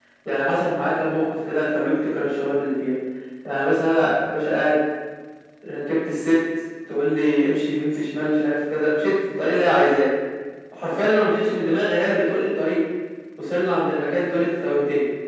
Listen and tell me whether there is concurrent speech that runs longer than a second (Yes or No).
No